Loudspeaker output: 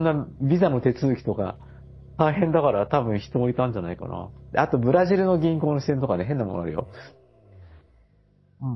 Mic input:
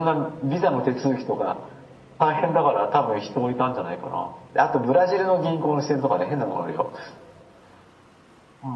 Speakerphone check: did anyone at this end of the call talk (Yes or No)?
No